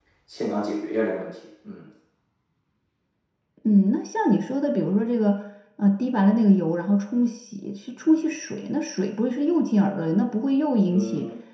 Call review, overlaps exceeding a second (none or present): none